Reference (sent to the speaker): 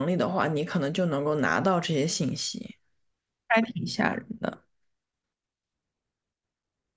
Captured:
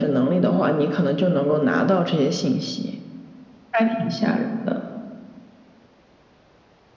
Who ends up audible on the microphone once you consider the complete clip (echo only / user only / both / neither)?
echo only